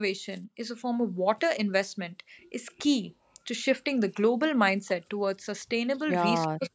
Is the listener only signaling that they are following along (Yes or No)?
No